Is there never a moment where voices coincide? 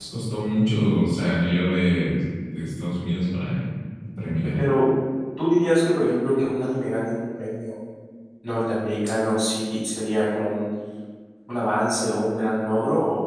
Yes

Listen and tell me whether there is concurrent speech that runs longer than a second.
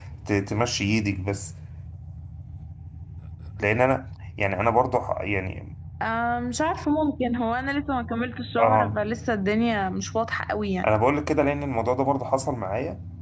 No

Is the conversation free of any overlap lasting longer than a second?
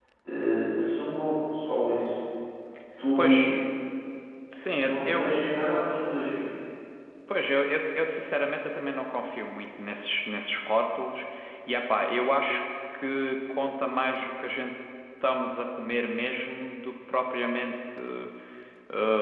Yes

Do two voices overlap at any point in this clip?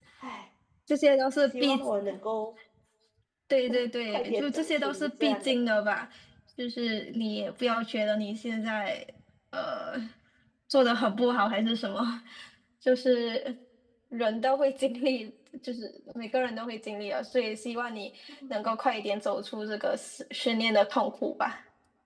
Yes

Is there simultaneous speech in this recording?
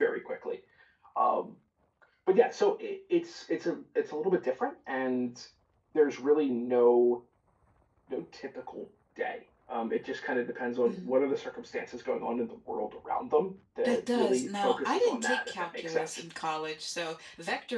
Yes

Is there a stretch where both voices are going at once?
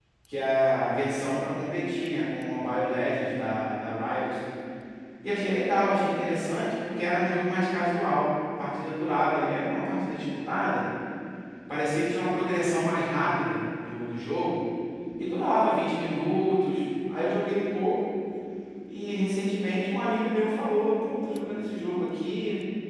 No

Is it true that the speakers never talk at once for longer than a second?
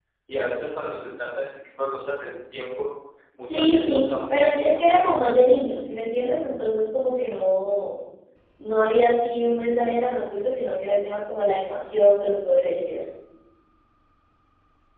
No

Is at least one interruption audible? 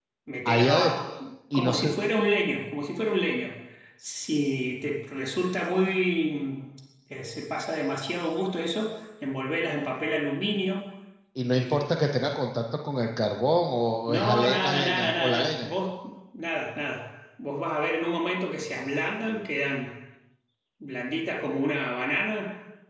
Yes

